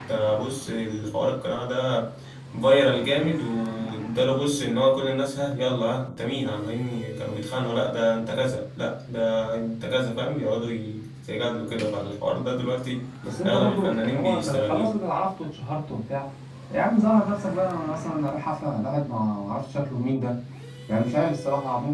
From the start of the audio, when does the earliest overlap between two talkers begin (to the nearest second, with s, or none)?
13 s